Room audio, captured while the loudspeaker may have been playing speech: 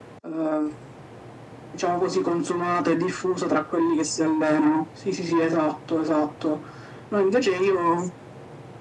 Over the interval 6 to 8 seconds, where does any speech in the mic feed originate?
echo only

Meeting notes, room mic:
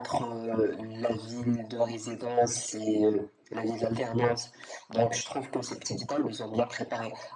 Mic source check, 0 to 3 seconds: echo only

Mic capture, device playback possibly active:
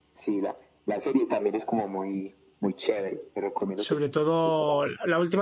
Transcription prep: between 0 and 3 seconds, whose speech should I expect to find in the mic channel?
echo only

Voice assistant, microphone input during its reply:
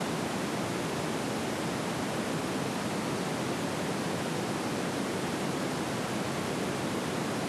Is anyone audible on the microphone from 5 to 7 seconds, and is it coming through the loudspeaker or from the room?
neither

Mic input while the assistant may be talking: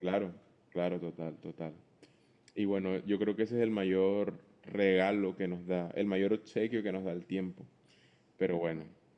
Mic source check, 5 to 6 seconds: user only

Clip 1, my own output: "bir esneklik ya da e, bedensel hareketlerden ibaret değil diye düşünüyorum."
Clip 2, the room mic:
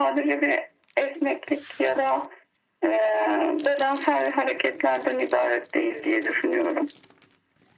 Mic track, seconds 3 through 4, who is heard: echo only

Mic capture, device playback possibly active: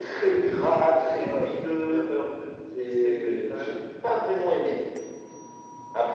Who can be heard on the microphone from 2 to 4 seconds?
echo only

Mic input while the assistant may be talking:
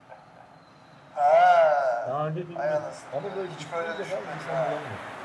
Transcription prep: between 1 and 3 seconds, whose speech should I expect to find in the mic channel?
both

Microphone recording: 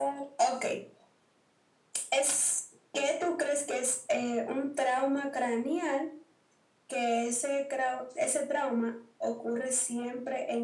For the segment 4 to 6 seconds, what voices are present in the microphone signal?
echo only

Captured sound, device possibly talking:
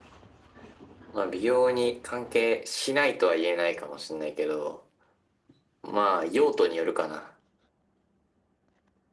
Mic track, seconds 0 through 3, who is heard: echo only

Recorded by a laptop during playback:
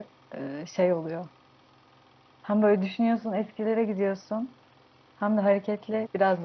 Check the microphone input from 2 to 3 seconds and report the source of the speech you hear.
user only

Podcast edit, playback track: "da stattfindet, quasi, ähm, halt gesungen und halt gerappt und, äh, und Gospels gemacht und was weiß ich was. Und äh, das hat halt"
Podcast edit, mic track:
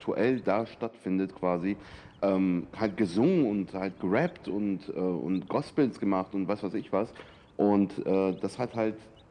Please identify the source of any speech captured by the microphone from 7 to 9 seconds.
echo only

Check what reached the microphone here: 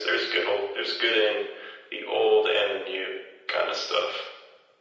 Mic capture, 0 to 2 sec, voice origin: echo only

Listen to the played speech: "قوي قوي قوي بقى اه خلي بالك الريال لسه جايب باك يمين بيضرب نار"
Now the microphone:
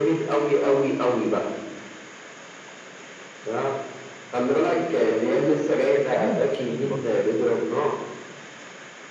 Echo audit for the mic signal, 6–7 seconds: both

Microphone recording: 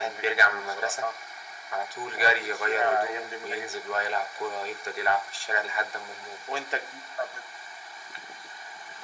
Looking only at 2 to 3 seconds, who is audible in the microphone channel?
echo only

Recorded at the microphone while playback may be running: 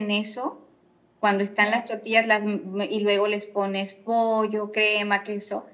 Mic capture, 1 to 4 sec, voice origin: echo only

